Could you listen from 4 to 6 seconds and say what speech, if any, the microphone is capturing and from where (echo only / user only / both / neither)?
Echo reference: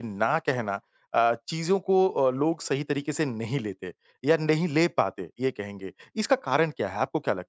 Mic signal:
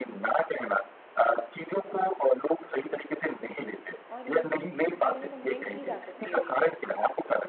both